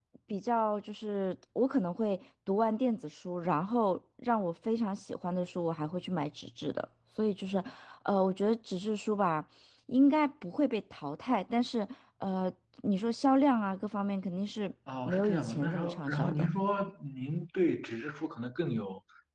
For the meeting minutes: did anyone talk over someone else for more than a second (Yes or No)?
Yes